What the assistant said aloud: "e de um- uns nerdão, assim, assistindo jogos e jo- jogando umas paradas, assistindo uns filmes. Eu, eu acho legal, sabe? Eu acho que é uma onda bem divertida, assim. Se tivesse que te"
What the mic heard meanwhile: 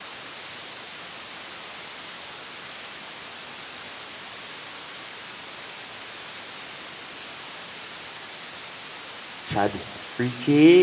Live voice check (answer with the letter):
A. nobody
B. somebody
B